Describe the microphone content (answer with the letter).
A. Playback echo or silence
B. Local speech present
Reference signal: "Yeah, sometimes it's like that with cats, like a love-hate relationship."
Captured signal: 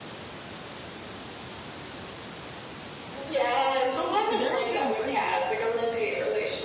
B